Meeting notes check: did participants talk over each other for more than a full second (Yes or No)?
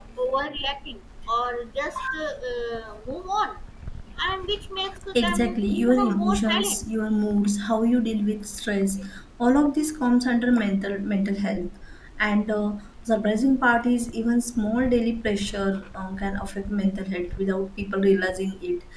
Yes